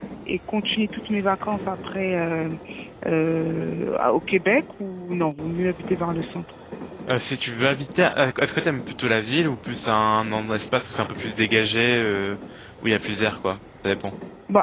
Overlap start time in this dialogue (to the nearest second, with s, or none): none